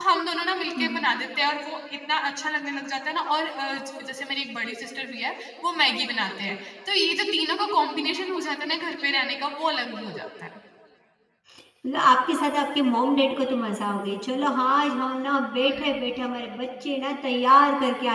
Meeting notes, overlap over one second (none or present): none